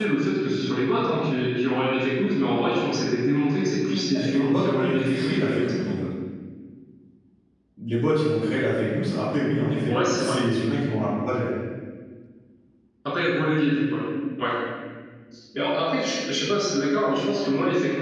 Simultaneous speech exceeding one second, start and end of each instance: 4.1-5.7

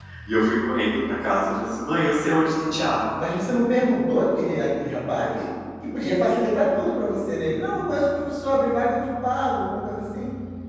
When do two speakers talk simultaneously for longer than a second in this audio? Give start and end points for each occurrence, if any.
none

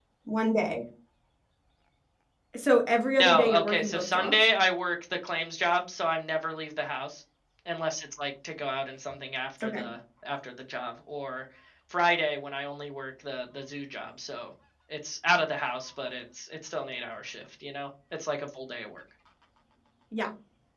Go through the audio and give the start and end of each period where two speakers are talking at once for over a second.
3.2-4.5

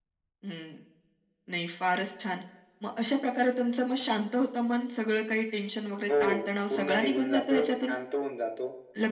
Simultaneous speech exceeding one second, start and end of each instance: 6.7-7.9

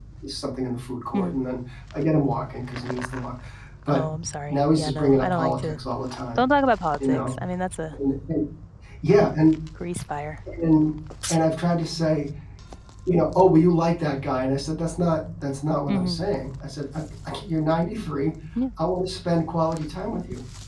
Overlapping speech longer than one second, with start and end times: 4.5-5.8

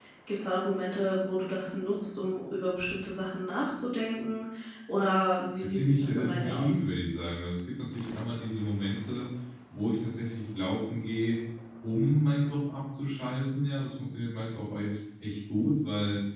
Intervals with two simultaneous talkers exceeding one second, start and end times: 5.6-6.8

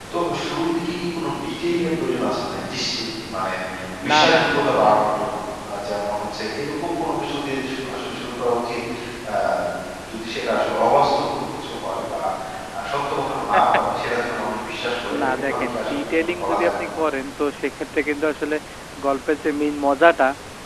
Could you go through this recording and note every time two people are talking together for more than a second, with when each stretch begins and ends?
15.2-16.7

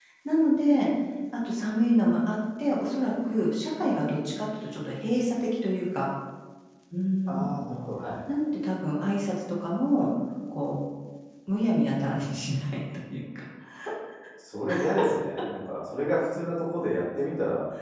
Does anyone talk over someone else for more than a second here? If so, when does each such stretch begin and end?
none

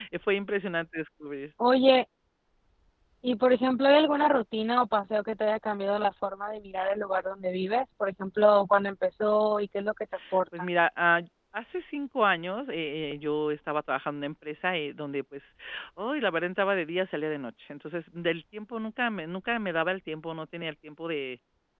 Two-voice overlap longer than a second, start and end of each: none

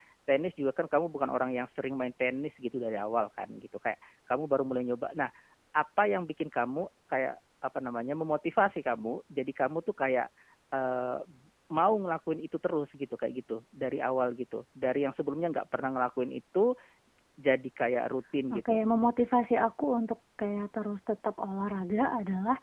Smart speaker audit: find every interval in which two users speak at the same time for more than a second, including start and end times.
none

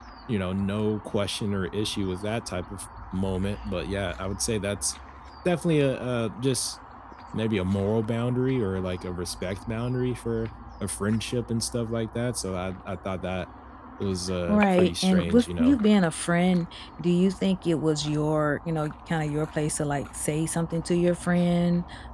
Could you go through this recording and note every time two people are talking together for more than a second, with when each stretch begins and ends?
14.5-15.8

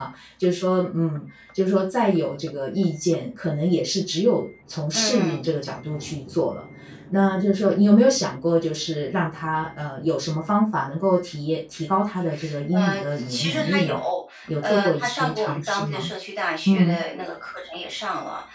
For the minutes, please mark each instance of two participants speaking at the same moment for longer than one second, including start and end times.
12.7-13.9, 14.6-16.1

